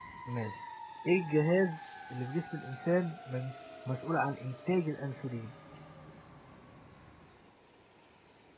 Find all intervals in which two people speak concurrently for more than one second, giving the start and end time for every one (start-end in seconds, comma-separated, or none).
none